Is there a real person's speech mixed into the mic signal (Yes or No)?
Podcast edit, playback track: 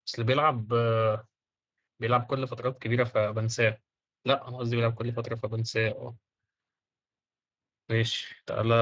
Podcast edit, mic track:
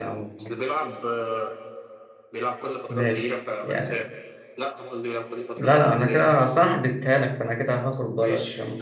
Yes